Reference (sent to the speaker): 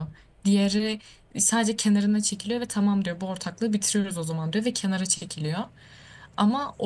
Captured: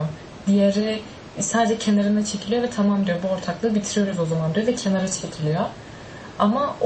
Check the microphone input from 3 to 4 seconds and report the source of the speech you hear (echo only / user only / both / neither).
echo only